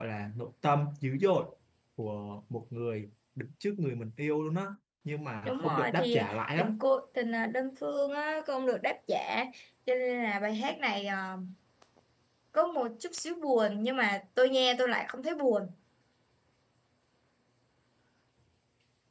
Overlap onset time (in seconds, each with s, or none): 5.5 s